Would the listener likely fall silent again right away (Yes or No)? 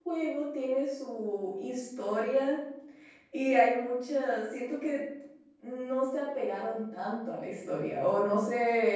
Yes